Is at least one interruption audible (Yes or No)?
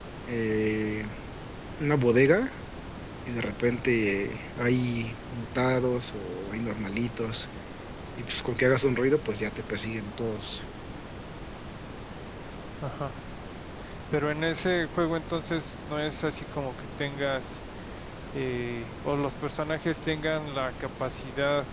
No